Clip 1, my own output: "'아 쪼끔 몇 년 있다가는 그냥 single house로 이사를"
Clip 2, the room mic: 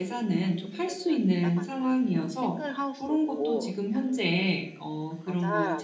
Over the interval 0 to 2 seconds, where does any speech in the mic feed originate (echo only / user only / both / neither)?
both